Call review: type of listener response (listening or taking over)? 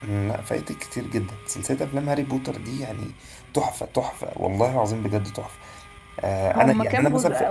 taking over